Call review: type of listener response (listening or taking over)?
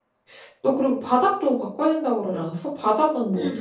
taking over